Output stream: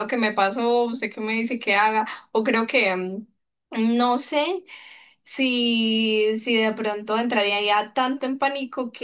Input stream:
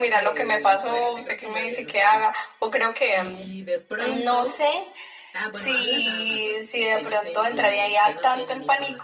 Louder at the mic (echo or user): echo